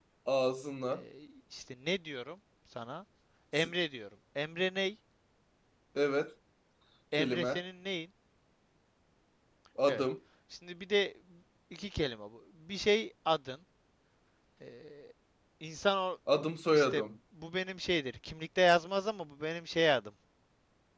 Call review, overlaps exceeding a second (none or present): none